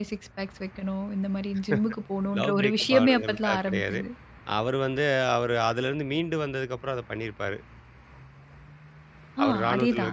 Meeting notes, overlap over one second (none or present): present